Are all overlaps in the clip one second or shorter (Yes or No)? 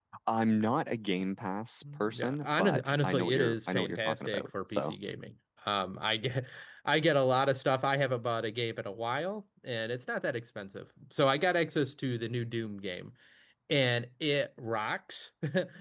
No